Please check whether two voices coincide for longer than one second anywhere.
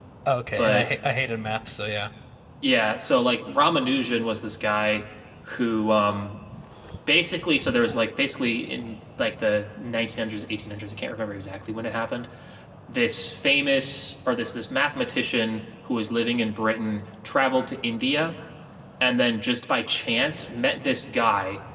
No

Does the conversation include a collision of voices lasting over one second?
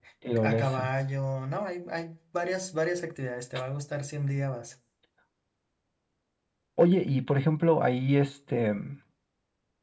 No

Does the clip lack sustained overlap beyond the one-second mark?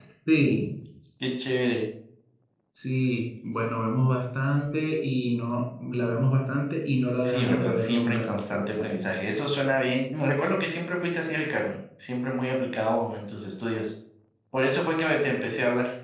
No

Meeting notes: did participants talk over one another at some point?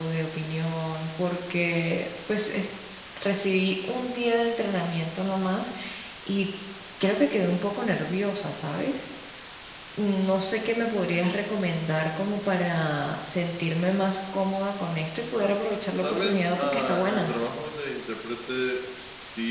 Yes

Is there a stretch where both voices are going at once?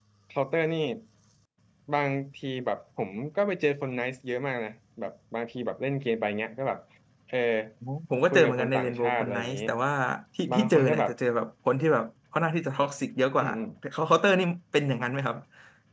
Yes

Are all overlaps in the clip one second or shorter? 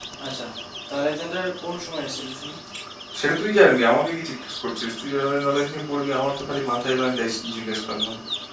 Yes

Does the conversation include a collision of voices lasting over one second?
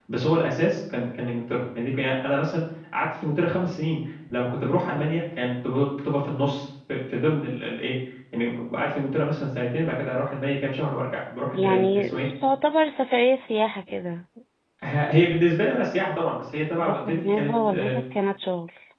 Yes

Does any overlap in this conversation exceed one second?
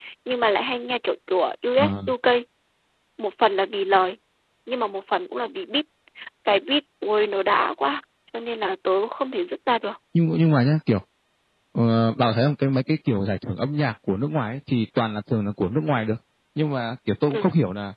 No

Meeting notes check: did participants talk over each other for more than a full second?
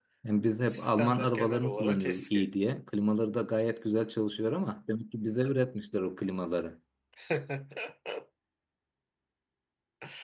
Yes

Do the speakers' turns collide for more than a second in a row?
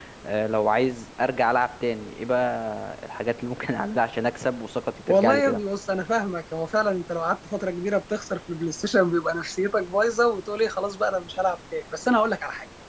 No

